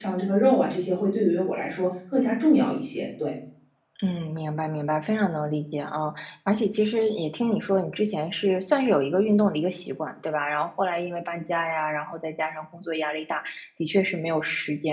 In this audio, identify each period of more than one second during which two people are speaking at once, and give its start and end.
none

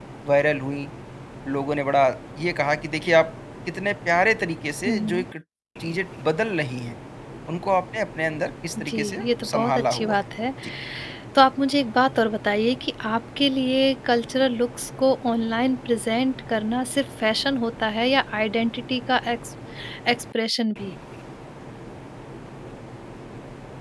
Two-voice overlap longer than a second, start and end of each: 8.8-10.2

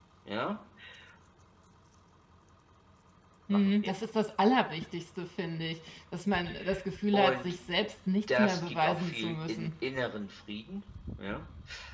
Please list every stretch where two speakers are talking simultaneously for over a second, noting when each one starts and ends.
8.3-9.7

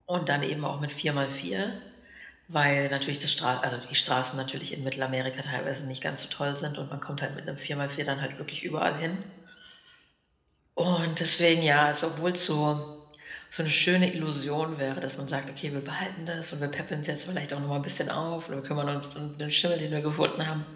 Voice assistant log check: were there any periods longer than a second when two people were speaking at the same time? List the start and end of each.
none

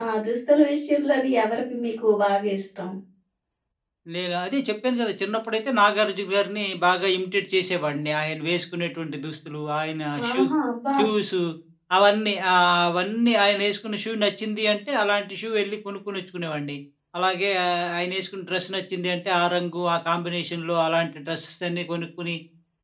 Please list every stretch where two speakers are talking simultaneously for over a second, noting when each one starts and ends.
none

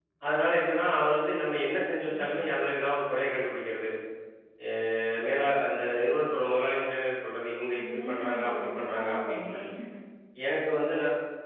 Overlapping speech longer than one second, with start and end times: 7.8-9.6

